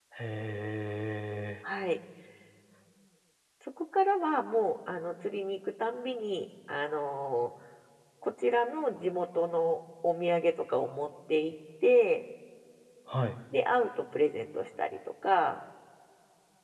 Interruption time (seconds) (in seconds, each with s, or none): none